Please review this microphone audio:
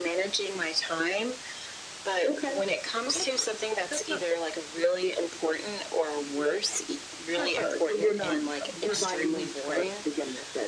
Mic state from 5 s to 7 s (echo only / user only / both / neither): echo only